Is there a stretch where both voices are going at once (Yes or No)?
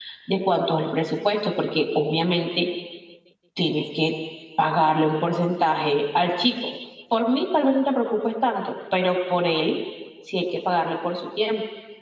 No